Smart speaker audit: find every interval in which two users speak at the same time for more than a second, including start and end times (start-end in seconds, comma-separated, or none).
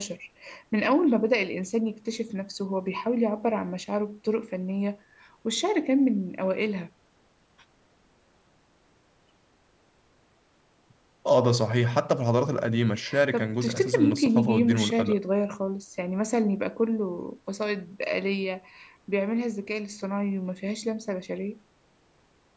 13.3-15.2